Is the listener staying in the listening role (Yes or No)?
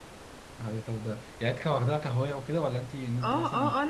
No